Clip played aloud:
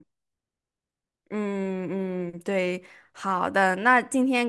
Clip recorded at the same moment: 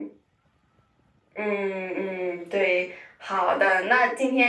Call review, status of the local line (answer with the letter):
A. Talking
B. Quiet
B